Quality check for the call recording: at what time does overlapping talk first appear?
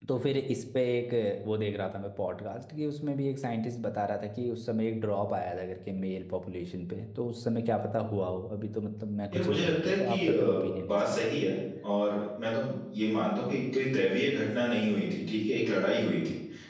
9 s

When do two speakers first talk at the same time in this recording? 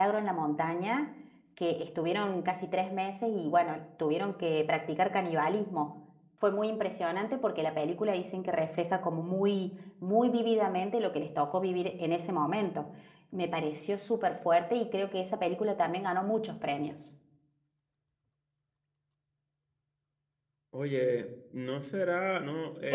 none

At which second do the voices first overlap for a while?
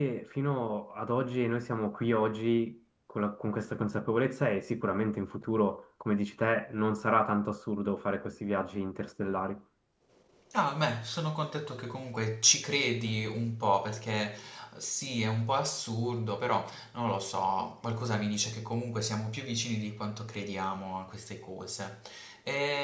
none

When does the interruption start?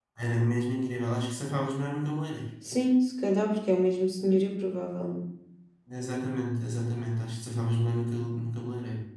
none

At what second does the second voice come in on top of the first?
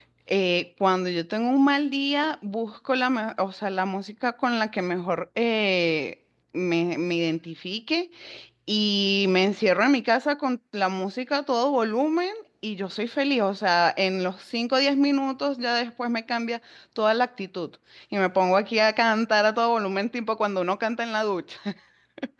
none

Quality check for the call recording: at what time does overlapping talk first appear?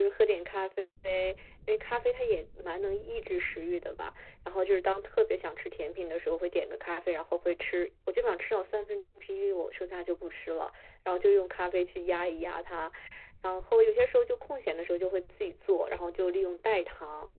none

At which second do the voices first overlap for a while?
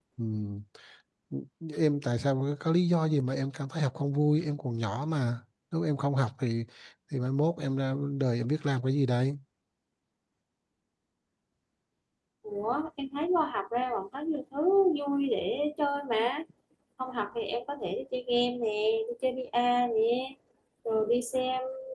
none

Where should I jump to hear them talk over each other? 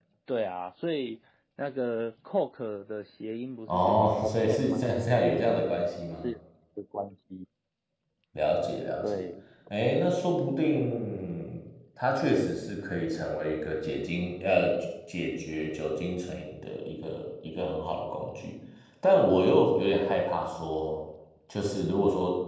4 s

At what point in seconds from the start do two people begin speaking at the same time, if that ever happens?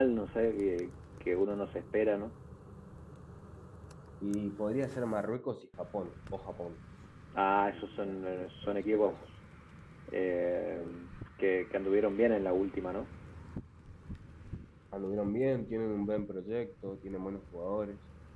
8 s

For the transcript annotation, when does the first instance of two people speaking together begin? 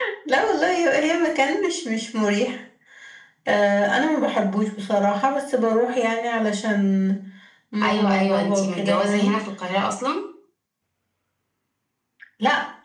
8 s

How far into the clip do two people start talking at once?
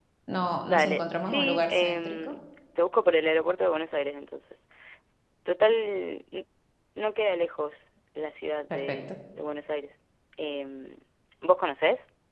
1 s

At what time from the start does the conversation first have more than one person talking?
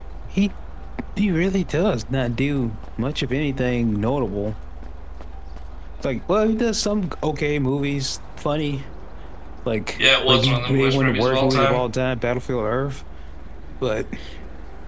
10 s

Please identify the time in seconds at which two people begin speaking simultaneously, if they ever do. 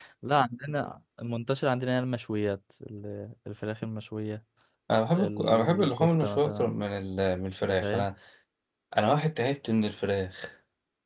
5 s

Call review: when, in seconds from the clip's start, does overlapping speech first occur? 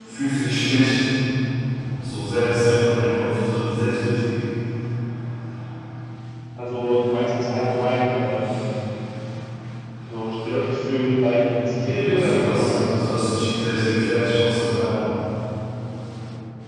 12 s

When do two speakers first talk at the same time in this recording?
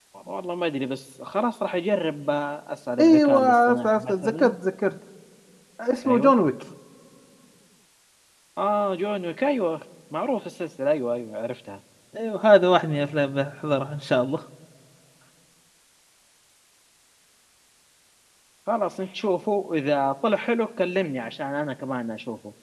3 s

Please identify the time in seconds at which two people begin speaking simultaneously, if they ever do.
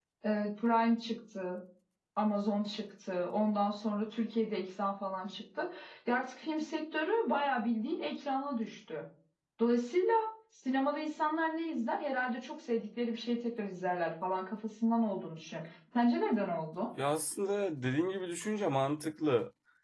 none

